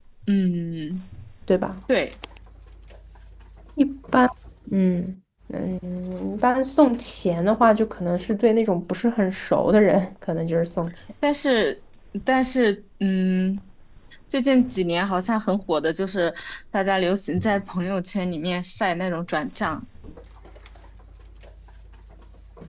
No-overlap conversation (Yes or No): Yes